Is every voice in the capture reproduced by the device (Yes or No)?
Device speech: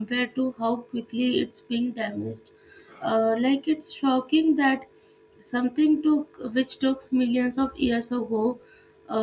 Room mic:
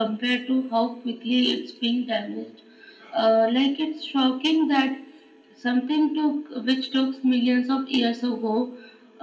Yes